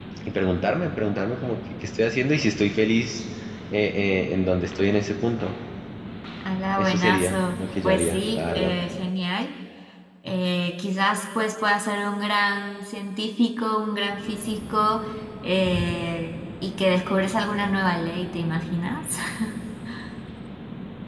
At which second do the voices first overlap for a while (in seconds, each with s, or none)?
6.8 s